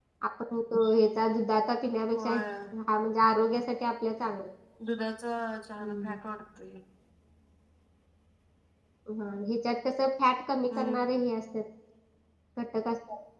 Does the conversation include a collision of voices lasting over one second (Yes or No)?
No